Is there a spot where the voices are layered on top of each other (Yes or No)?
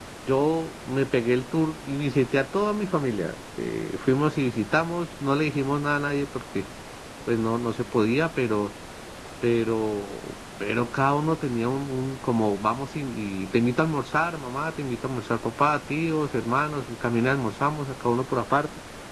No